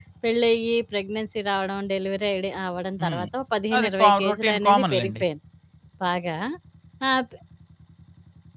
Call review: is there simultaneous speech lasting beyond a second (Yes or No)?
Yes